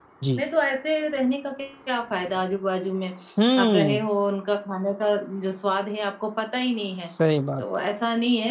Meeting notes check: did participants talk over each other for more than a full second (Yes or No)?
No